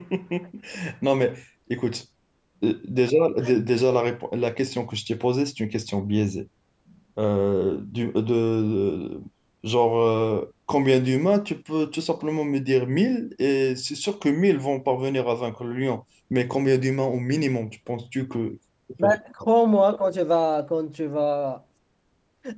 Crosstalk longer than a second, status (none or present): none